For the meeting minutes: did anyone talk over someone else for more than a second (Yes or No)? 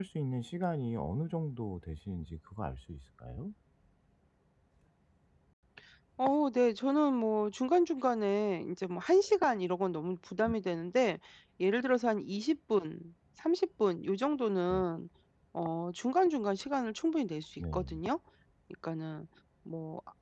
No